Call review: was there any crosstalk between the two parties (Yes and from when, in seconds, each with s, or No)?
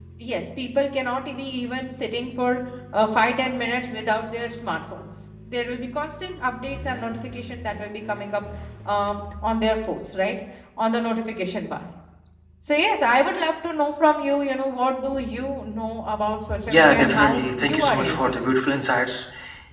Yes, from 16.5 s